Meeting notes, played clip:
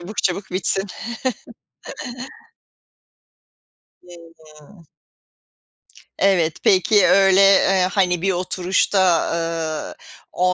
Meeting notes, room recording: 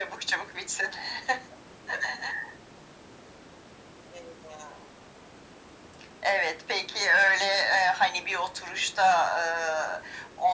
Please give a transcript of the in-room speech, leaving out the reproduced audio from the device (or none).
none